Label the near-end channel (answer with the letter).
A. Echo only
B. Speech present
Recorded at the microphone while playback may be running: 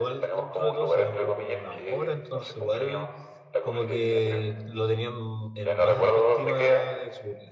B